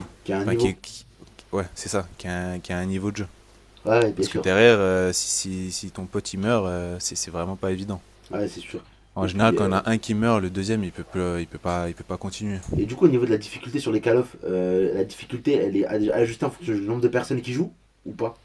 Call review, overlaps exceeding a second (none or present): none